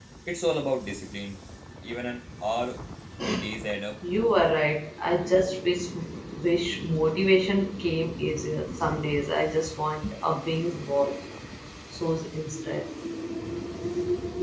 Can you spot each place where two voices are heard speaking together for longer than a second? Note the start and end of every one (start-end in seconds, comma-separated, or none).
none